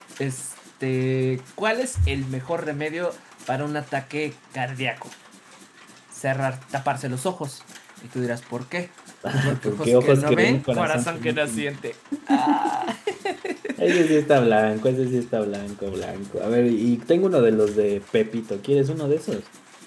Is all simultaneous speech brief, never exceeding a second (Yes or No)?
No